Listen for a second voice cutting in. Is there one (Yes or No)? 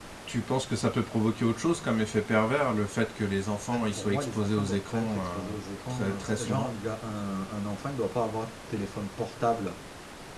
Yes